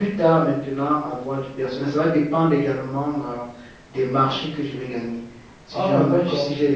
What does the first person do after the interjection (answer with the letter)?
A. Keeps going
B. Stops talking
A